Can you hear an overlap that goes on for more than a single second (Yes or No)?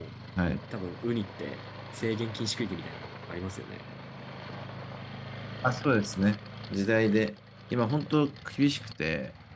No